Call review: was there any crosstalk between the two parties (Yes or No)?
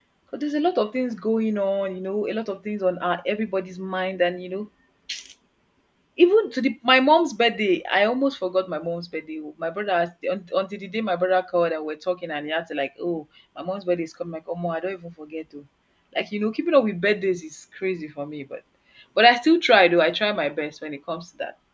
No